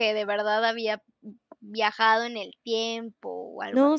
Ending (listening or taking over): taking over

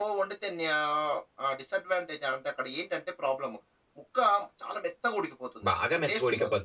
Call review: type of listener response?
taking over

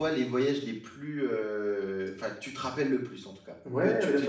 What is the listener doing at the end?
taking over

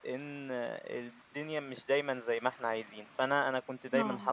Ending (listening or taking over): listening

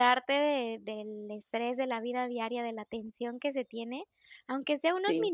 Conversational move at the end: listening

